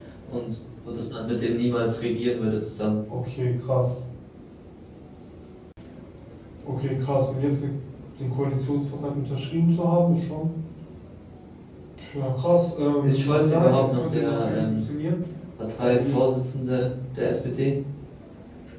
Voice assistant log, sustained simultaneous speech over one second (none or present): present